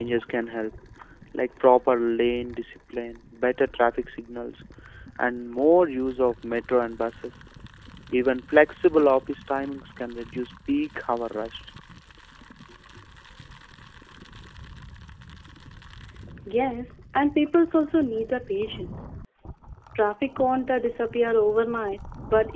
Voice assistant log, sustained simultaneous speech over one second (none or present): none